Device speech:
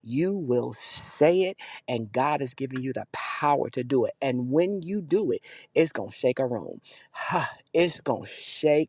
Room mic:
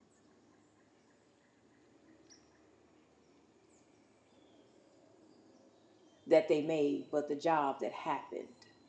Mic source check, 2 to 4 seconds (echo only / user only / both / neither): neither